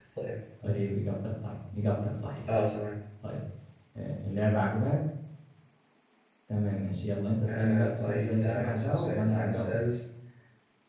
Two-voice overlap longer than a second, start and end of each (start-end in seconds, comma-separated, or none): 7.5-9.8